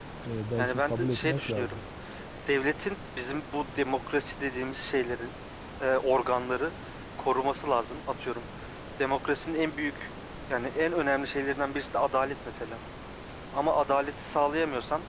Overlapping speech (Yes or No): Yes